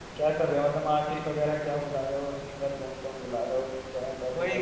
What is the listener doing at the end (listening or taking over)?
taking over